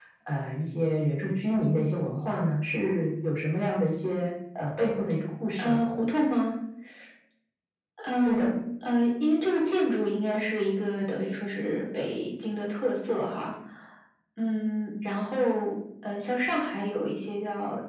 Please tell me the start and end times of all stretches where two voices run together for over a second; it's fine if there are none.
none

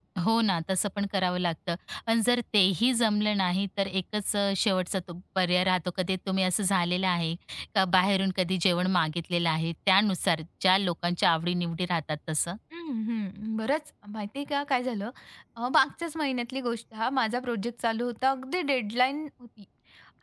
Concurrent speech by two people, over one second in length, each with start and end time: none

